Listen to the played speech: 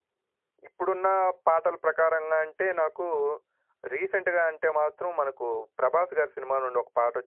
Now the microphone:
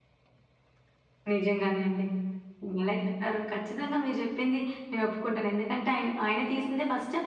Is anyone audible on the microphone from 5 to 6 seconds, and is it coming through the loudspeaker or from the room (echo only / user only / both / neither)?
user only